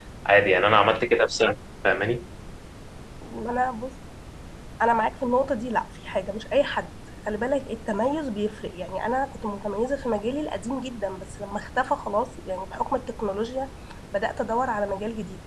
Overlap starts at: none

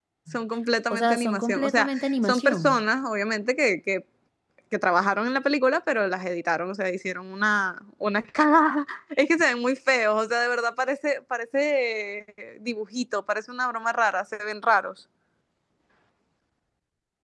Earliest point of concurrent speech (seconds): 0.9 s

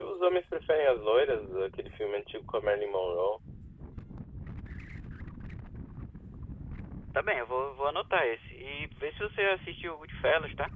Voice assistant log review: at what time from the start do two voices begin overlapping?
none

